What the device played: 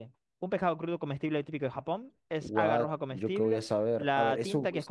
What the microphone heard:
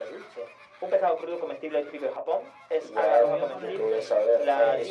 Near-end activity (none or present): present